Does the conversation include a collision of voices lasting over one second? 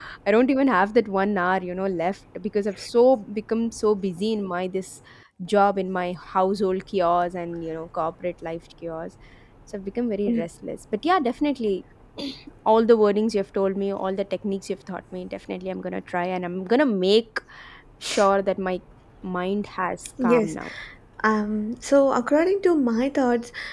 No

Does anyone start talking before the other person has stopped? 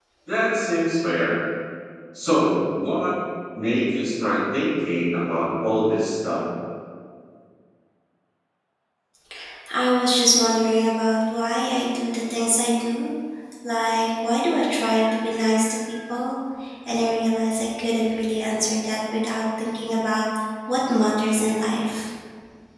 No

